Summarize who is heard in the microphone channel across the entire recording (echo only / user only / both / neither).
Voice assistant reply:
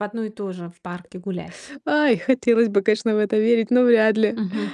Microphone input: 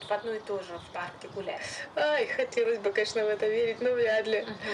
echo only